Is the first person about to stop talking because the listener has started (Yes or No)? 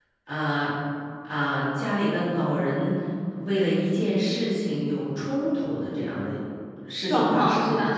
Yes